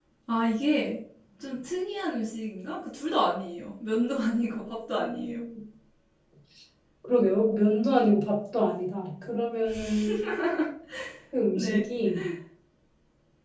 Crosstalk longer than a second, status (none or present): none